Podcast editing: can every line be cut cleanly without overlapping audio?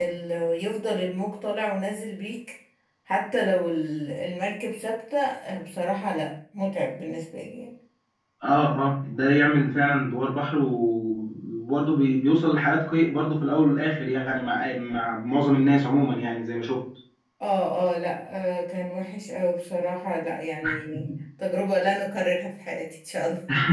Yes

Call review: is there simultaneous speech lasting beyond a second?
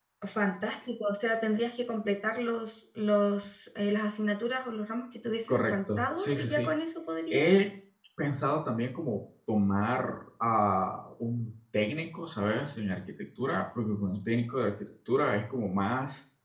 Yes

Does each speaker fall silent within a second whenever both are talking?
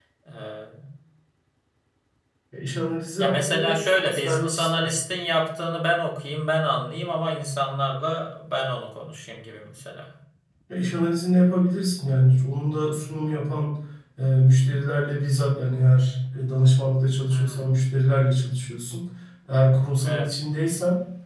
No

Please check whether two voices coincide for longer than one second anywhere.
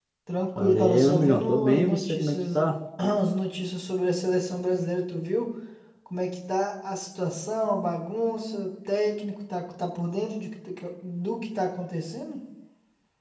Yes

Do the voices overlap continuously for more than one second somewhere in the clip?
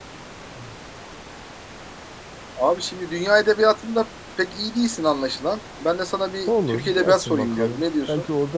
Yes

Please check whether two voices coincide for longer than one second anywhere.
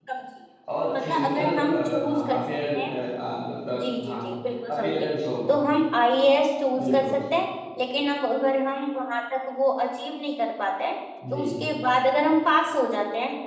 Yes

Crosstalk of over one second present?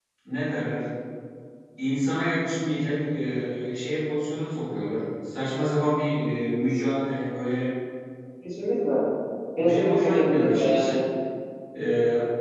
Yes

